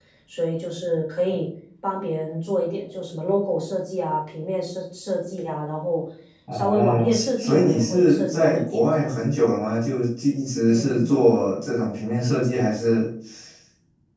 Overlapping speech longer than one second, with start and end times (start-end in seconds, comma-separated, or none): 6.5-9.2